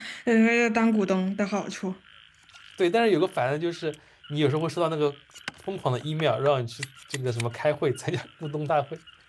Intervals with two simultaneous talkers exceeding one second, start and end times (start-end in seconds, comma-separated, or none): none